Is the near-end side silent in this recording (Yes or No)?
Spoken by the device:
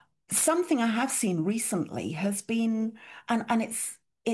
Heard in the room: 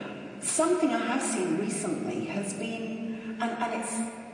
Yes